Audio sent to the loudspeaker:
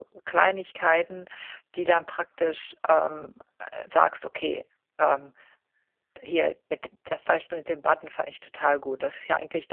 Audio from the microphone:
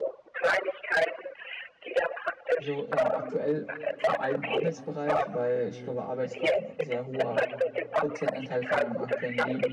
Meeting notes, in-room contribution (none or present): present